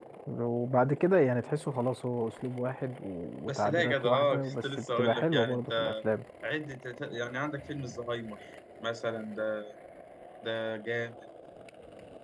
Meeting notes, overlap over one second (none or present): present